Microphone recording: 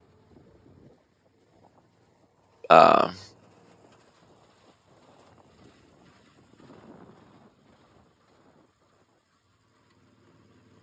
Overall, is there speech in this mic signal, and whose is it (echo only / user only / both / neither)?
user only